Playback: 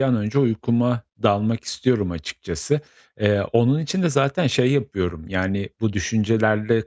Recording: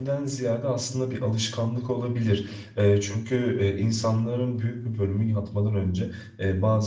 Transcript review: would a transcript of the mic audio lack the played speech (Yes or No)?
Yes